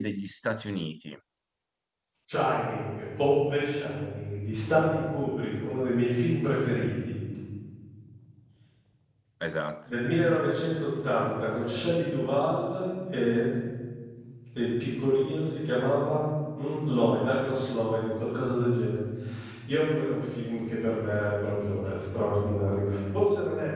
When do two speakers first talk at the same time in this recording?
none

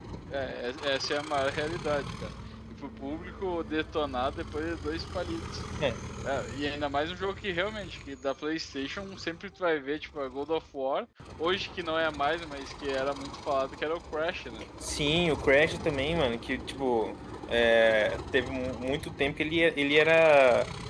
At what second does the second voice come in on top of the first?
none

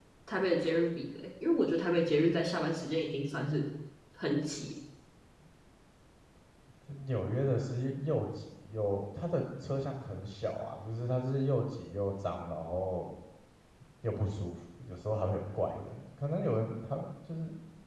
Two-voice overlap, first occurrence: none

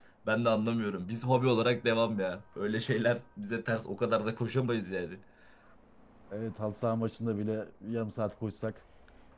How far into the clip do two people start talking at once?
none

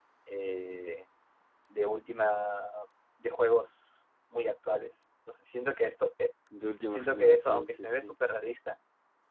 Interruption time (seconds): 6.9 s

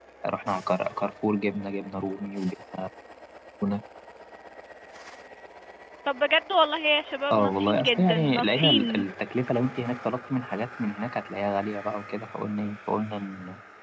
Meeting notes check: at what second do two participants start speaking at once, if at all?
7.3 s

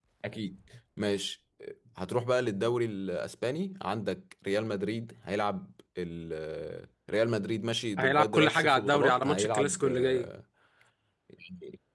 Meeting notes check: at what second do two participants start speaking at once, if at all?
8.0 s

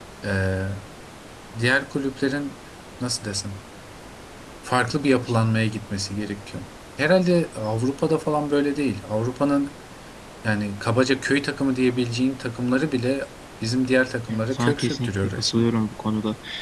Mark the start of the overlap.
14.3 s

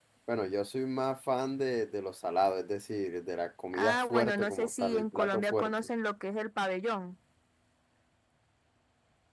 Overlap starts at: 3.7 s

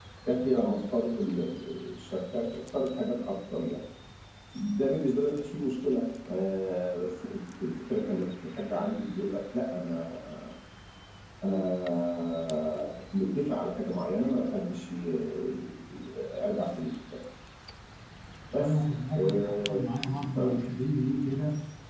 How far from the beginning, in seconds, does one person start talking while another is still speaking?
18.6 s

